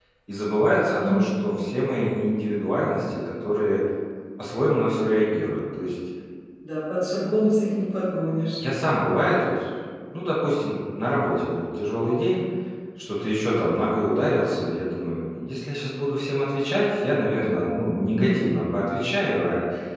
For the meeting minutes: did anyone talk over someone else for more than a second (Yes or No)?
No